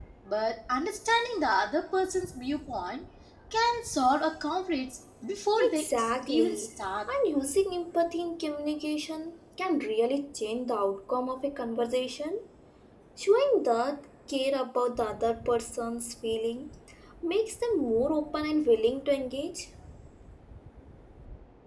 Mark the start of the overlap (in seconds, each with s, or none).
5.6 s